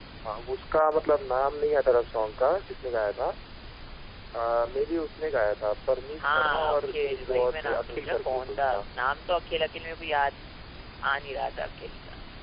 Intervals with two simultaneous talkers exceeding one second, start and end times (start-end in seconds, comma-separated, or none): 6.2-8.8